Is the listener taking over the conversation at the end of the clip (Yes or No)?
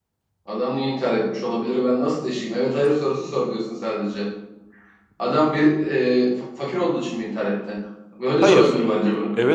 Yes